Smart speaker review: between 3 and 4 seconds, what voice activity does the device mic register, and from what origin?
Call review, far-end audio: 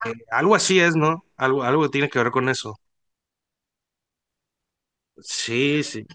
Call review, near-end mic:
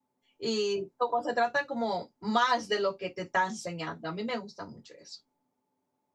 user only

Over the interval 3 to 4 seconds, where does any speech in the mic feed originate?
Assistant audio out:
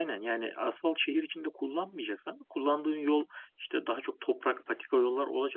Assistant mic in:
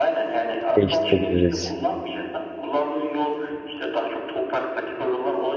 echo only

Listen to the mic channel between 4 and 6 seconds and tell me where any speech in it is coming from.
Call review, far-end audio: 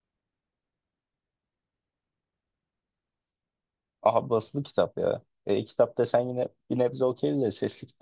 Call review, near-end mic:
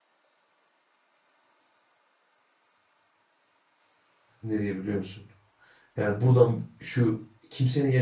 user only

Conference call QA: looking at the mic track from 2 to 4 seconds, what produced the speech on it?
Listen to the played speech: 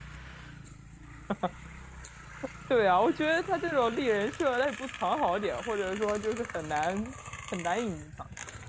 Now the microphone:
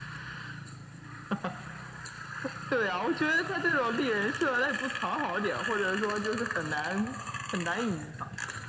echo only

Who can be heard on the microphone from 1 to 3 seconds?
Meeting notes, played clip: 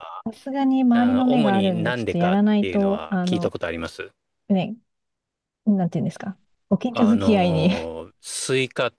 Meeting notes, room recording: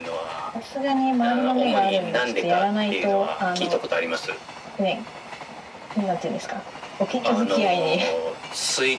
echo only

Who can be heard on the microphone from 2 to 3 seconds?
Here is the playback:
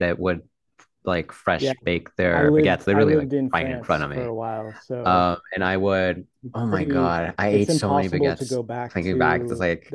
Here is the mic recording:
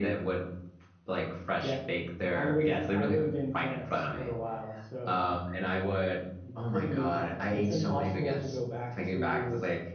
echo only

